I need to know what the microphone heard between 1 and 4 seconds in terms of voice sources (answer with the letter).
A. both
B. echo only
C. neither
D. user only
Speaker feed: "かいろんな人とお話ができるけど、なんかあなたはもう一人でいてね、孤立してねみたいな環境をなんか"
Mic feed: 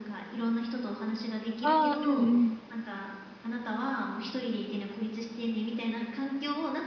A